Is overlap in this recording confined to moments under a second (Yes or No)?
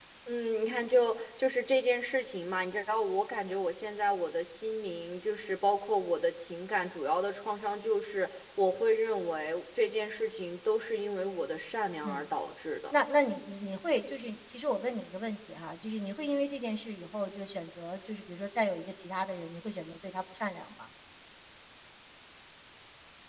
Yes